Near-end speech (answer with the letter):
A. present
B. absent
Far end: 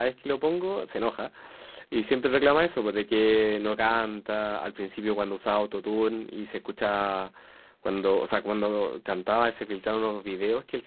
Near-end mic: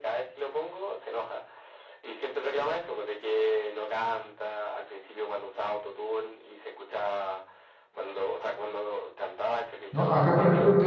A